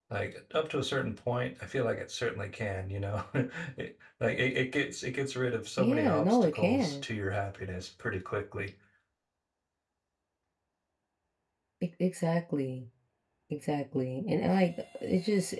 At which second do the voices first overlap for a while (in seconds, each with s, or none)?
5.8 s